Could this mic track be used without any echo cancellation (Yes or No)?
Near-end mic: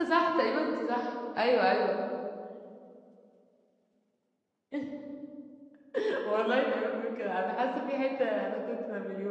Yes